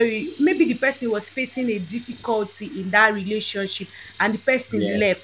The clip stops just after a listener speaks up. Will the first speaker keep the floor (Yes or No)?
Yes